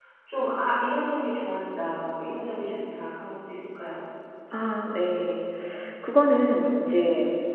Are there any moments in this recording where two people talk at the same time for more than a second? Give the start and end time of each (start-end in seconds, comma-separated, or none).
none